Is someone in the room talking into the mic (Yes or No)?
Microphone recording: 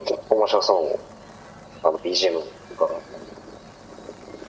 No